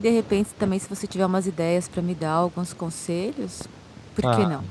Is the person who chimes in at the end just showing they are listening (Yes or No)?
No